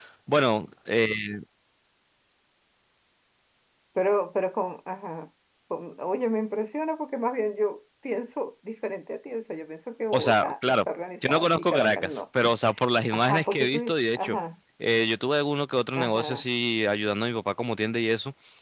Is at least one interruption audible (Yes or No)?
Yes